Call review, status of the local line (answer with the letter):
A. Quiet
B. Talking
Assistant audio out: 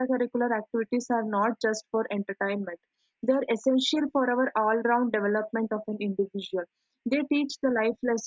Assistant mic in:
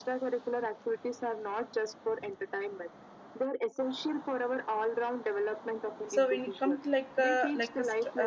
B